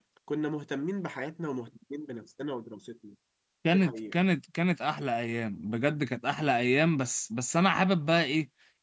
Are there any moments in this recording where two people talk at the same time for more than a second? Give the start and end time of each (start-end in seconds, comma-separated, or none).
none